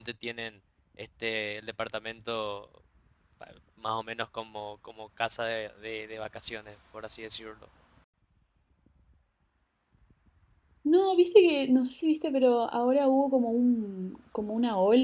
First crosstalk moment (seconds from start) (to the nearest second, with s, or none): none